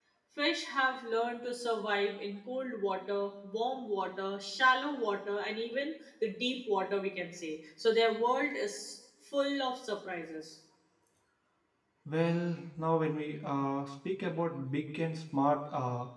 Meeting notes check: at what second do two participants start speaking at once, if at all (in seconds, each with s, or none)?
none